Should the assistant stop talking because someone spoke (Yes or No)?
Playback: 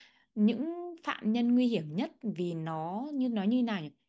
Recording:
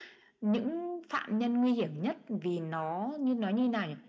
No